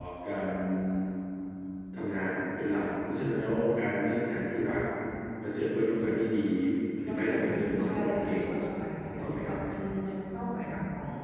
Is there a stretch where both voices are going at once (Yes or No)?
Yes